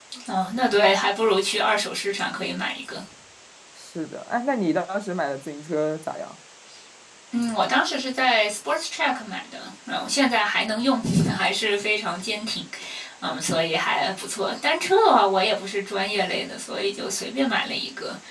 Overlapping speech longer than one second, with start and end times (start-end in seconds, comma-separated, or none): none